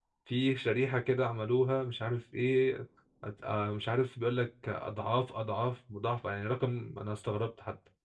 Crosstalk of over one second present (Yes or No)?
No